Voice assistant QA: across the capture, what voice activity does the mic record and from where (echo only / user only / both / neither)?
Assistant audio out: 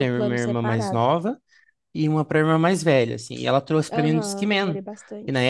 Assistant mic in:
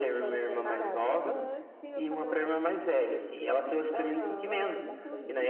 both